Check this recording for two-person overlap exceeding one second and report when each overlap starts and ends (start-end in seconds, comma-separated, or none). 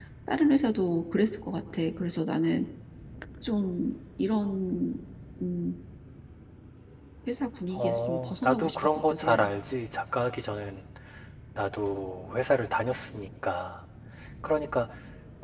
7.8-9.5